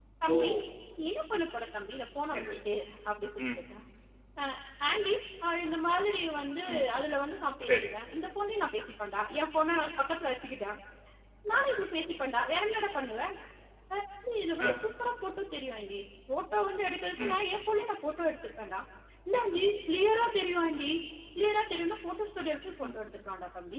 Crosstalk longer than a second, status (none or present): none